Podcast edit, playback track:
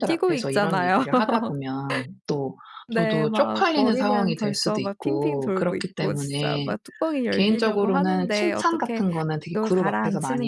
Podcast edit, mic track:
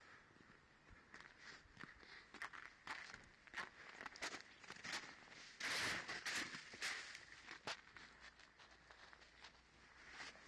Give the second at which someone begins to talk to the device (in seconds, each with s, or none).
none